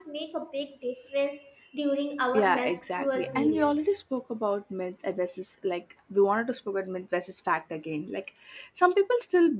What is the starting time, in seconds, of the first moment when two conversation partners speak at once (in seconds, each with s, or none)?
2.3 s